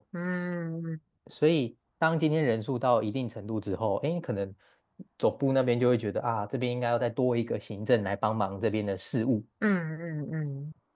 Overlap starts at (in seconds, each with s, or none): none